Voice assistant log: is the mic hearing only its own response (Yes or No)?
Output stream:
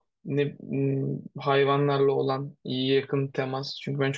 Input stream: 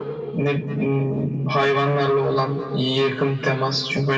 Yes